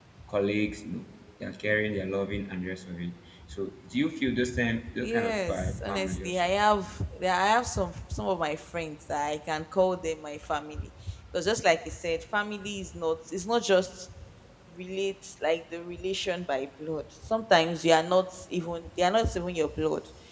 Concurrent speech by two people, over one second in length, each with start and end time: 5.0-6.5

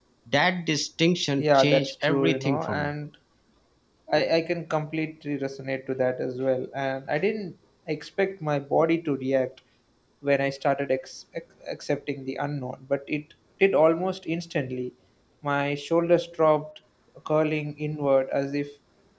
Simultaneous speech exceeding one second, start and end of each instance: 1.4-2.9

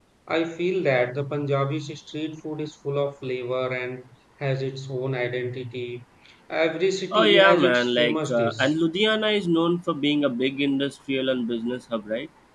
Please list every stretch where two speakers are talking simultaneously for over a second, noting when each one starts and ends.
7.1-8.5

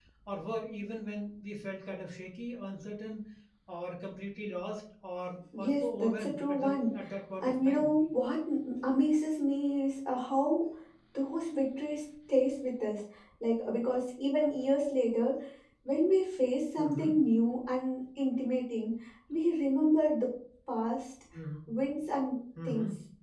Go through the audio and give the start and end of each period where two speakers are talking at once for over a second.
5.6-6.9

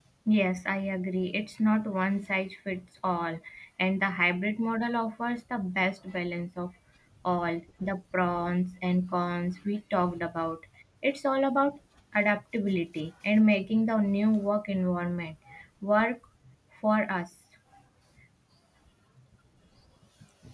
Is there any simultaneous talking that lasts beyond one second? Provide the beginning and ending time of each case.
none

